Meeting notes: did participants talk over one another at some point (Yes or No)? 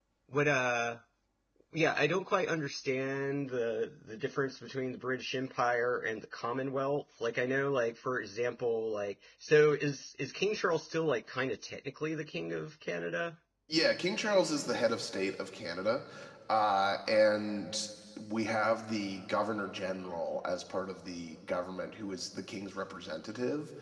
No